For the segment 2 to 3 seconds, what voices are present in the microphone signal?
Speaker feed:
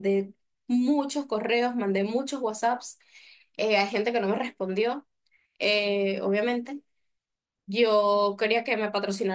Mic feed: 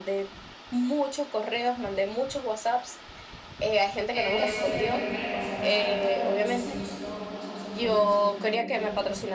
echo only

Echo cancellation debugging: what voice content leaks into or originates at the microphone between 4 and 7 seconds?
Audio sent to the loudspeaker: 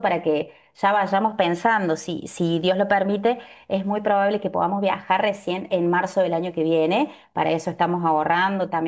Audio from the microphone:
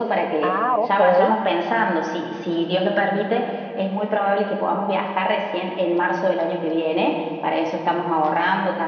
echo only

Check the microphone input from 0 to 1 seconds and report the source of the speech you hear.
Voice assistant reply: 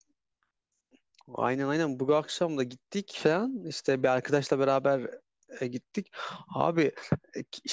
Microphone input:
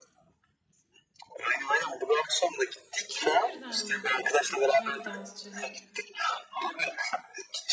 neither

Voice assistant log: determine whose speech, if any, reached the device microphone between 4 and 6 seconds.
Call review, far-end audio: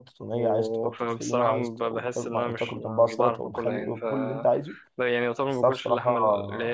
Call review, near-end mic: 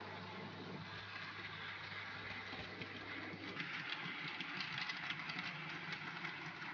neither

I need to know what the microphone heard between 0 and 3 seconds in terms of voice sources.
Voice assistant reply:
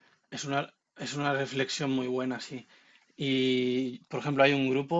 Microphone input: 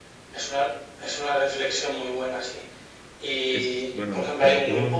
echo only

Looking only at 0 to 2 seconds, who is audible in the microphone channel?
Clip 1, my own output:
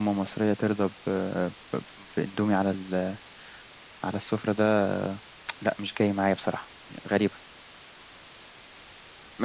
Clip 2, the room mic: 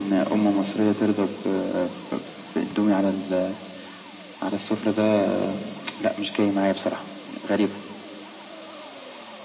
echo only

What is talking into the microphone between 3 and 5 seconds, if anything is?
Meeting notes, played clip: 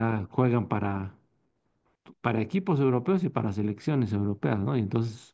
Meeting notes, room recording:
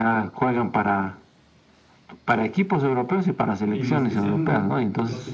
both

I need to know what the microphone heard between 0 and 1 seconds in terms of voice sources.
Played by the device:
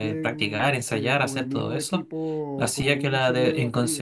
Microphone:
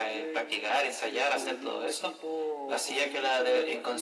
echo only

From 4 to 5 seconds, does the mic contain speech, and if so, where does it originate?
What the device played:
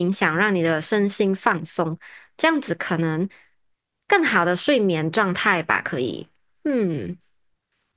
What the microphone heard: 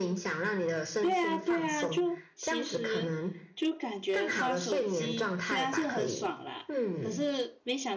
both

